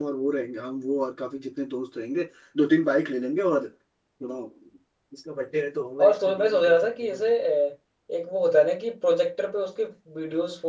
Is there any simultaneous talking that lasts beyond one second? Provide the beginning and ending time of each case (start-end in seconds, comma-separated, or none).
6.0-7.3